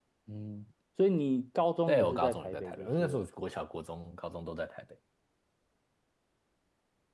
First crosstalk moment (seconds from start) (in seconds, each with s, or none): 1.9 s